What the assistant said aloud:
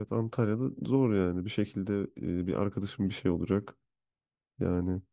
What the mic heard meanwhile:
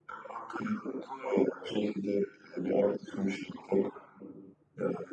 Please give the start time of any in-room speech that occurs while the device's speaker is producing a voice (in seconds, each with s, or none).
none